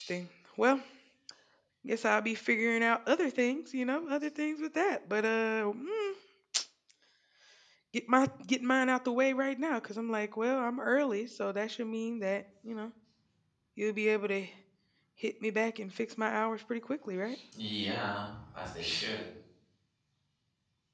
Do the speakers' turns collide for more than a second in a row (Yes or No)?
No